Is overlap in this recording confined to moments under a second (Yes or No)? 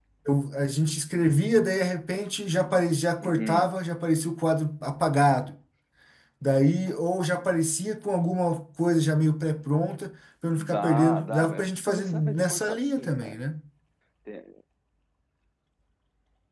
No